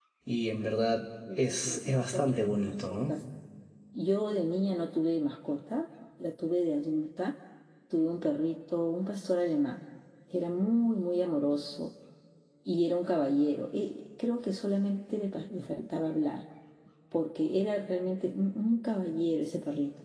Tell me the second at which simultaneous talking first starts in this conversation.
1.3 s

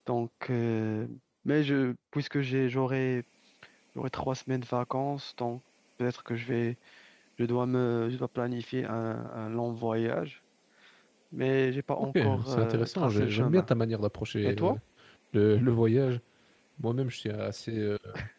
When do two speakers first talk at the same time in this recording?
12.0 s

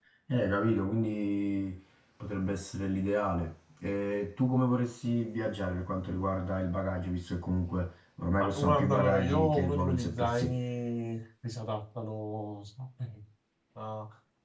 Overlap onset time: 8.4 s

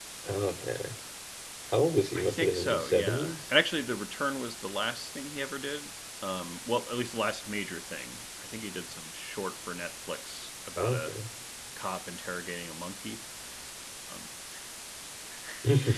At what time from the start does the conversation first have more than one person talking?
2.1 s

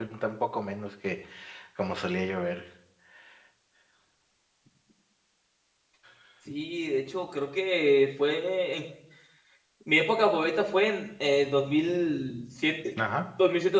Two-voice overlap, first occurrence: none

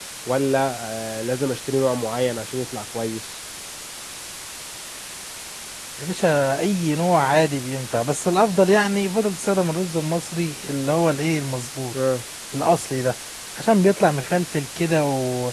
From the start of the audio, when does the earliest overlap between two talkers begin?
none

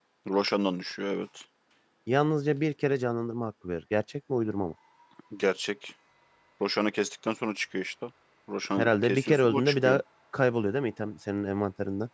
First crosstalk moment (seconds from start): 8.8 s

